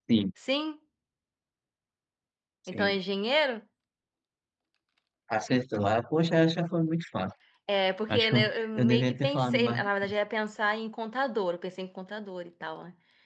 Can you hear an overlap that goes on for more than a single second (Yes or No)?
Yes